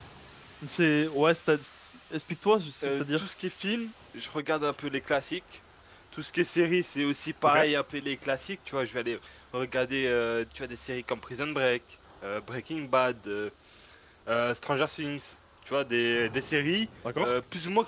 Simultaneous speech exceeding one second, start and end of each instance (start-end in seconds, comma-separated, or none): none